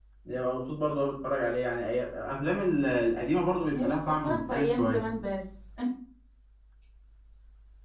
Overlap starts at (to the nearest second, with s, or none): 4 s